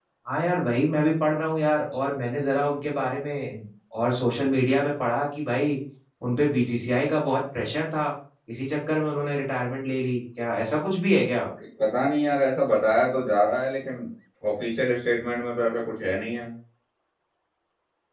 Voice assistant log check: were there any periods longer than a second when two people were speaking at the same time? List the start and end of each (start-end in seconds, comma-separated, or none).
none